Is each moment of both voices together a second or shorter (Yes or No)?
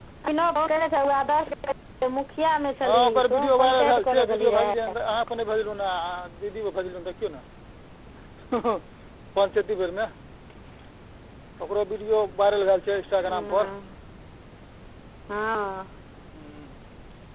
No